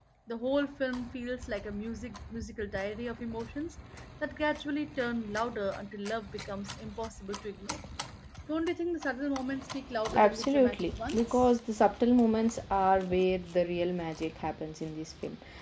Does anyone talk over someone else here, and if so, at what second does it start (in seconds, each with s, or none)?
10.1 s